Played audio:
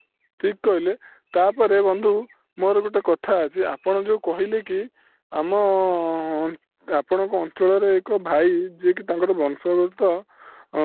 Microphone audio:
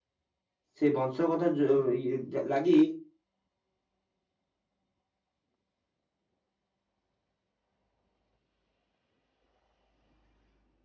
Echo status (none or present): none